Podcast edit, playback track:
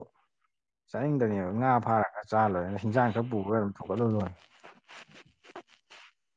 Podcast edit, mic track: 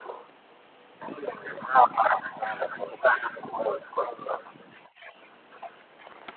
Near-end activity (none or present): none